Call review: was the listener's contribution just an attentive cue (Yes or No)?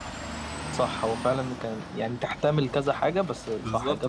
No